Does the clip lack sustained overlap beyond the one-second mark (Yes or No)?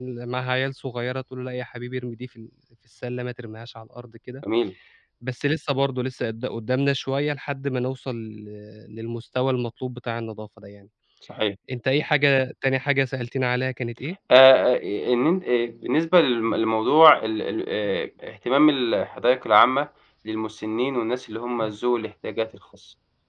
Yes